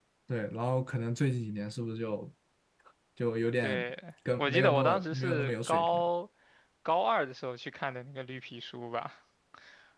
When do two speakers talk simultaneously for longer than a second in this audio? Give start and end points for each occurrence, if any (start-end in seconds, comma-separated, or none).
4.4-6.0